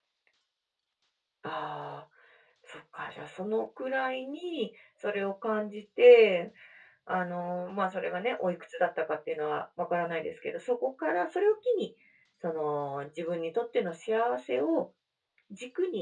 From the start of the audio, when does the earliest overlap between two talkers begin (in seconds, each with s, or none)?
none